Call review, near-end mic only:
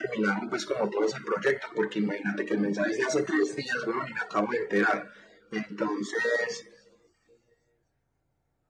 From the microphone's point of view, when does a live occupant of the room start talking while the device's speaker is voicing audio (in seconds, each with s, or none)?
none